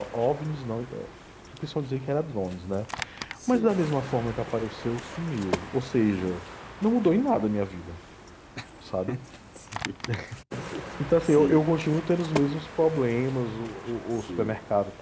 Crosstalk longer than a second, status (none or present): none